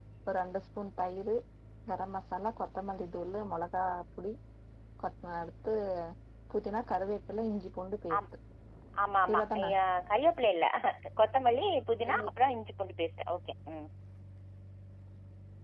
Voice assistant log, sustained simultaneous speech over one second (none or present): none